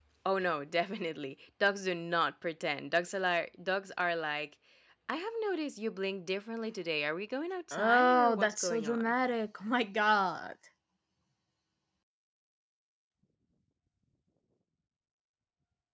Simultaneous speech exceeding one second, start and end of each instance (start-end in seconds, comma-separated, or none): 7.7-9.1